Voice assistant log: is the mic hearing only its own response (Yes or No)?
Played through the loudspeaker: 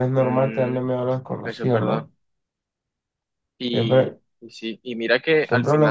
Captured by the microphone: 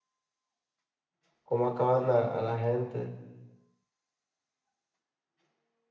No